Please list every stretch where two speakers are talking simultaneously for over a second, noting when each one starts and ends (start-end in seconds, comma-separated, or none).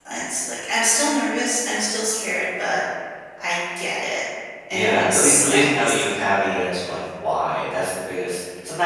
4.7-6.1